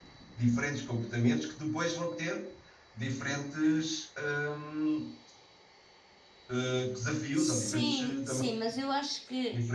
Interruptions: present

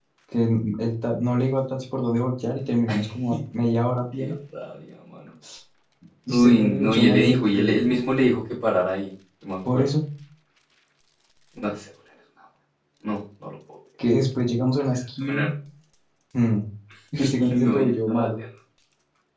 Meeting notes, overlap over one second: present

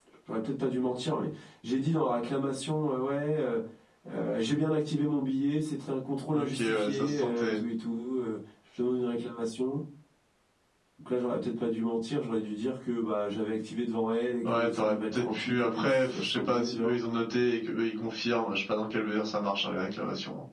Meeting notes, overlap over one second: present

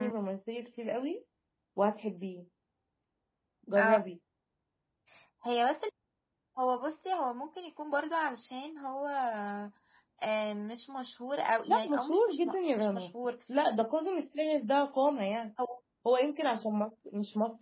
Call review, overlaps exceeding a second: present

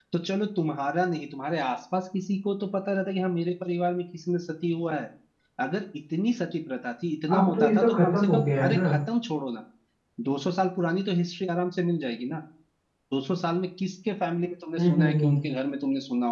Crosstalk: present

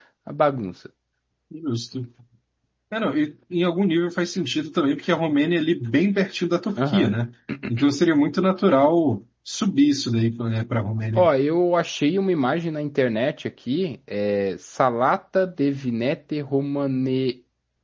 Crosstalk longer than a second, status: none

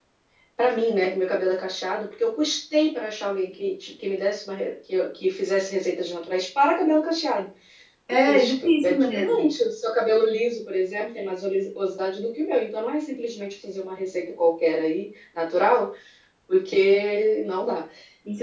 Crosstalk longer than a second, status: present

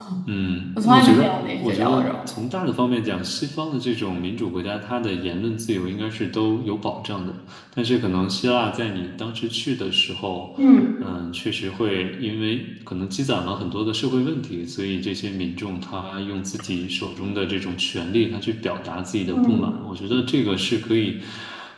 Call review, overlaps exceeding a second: present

